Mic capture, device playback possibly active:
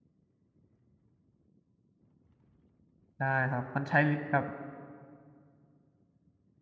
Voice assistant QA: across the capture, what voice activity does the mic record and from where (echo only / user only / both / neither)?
user only